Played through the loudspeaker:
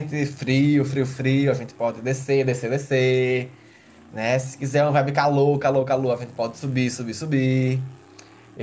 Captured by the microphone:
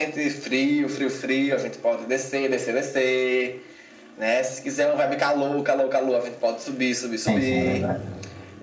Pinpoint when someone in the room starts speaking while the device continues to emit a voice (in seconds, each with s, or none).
7.2 s